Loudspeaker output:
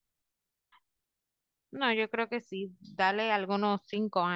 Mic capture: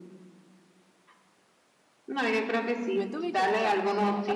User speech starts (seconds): 2.9 s

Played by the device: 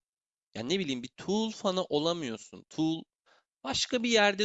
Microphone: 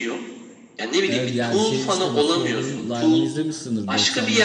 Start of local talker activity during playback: 1.1 s

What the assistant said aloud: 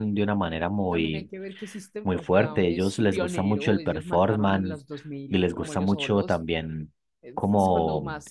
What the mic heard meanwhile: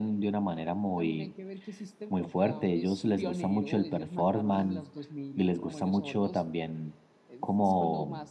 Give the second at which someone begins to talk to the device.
none

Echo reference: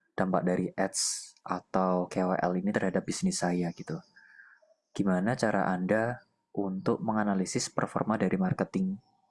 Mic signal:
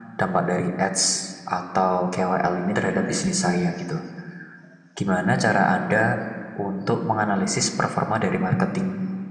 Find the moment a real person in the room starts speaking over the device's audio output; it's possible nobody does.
none

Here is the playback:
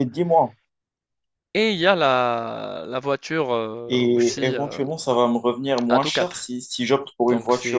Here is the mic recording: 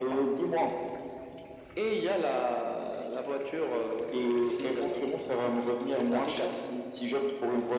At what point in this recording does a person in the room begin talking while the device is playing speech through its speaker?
none

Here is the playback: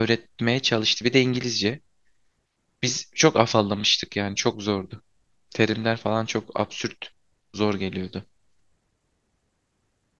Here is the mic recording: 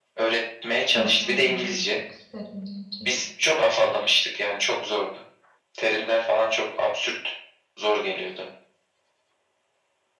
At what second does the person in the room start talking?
0.9 s

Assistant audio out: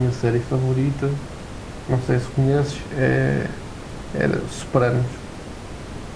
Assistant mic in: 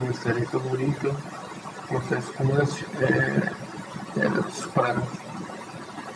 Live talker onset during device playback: none

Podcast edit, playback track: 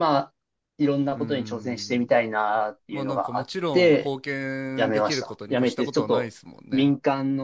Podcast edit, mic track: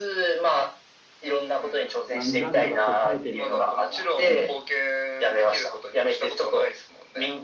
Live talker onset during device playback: 2.1 s

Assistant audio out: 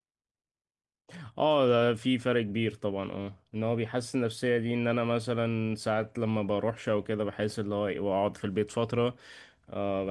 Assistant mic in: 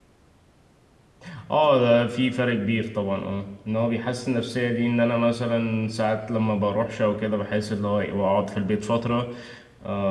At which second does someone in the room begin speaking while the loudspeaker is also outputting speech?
none

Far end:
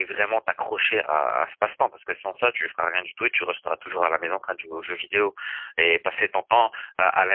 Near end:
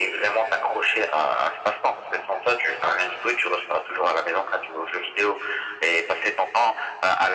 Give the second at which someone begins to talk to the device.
none

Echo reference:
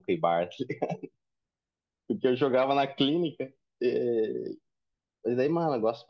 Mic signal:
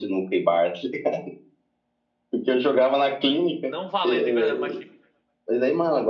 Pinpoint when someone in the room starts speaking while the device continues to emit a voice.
3.6 s

